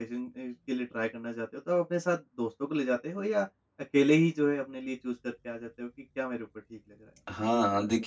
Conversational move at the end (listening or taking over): taking over